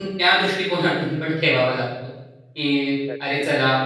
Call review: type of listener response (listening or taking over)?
listening